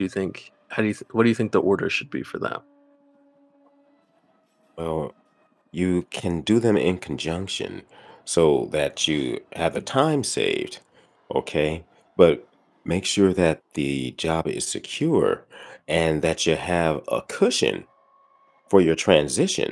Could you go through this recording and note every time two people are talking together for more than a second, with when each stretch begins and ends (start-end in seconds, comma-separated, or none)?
none